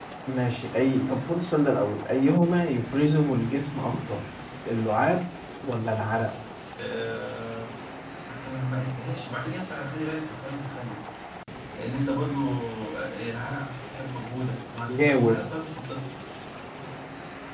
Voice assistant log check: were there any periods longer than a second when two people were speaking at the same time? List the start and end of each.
none

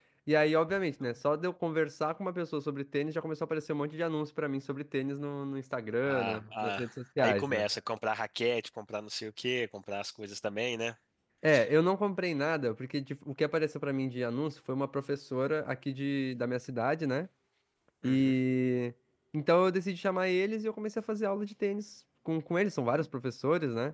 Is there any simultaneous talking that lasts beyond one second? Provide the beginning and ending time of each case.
6.0-7.6

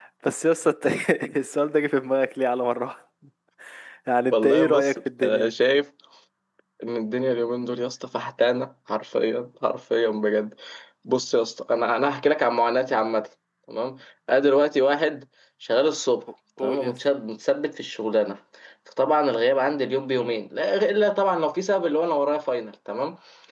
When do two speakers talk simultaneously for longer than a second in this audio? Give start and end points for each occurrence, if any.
4.3-5.5

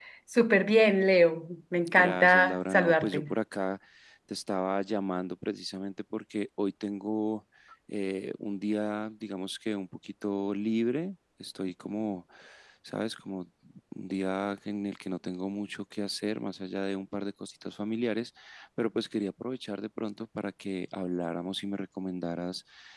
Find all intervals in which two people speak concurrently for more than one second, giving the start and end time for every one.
1.9-3.3

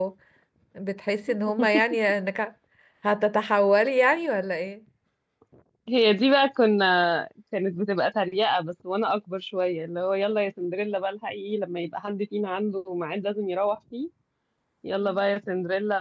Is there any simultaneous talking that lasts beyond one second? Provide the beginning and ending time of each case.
none

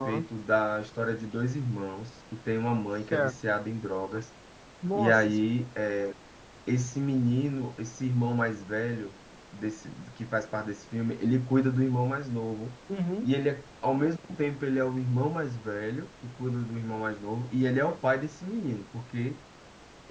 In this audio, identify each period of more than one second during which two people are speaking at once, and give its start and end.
none

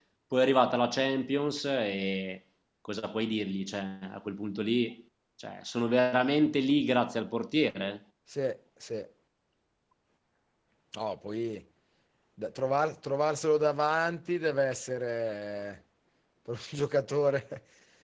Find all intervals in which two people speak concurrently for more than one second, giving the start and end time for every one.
none

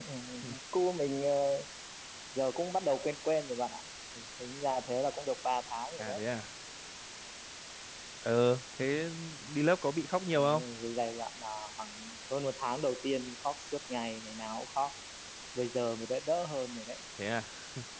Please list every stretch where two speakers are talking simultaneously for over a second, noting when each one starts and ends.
none

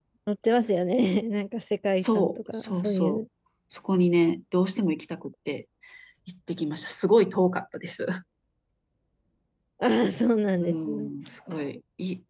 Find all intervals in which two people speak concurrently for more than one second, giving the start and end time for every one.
2.0-3.2

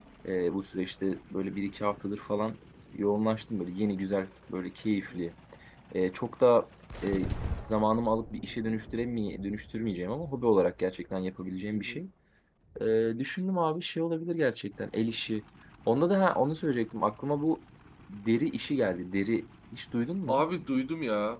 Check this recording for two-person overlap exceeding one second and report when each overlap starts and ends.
none

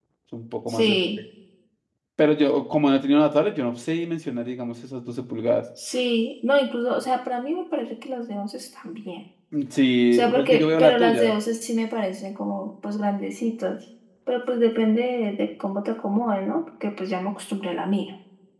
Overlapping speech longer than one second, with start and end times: 10.1-11.3

